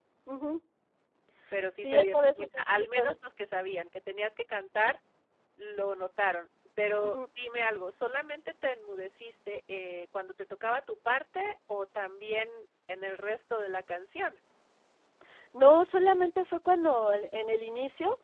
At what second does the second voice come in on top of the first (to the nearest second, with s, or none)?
2 s